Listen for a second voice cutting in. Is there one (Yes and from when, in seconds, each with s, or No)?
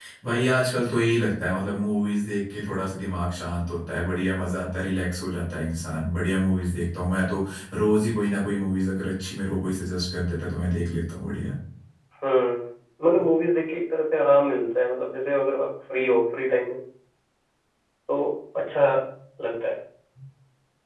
No